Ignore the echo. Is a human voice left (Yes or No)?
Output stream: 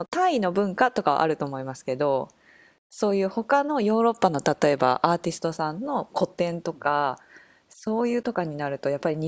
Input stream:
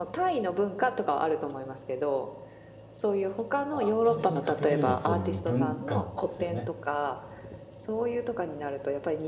Yes